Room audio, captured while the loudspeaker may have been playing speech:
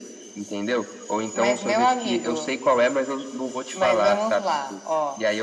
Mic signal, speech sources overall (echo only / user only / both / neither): echo only